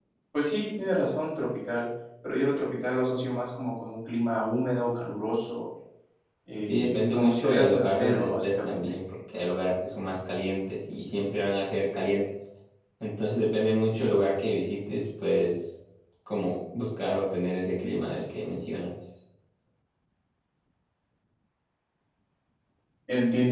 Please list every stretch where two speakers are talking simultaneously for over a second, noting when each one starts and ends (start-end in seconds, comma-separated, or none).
6.7-8.9